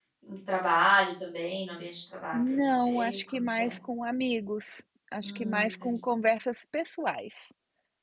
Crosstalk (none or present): present